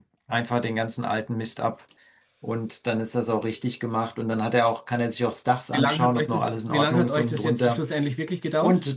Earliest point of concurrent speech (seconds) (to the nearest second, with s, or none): 6 s